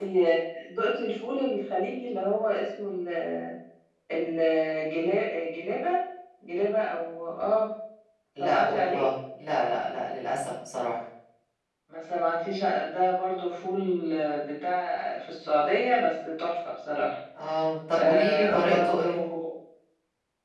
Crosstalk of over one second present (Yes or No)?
Yes